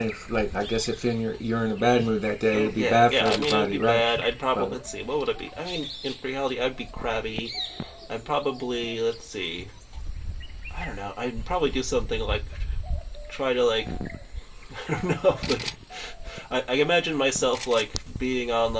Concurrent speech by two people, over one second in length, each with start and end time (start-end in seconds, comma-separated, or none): 2.5-4.0